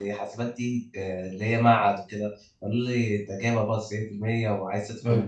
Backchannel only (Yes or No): Yes